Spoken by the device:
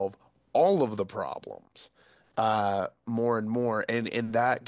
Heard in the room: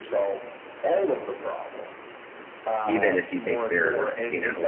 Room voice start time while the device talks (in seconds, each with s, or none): 2.8 s